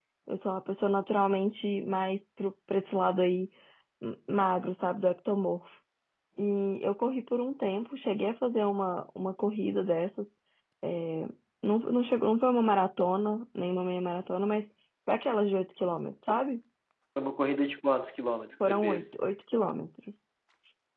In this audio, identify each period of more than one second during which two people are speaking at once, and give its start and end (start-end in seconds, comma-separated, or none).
none